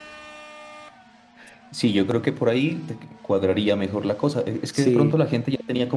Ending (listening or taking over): listening